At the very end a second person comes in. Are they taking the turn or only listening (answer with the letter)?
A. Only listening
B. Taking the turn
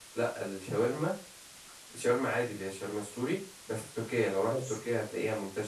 A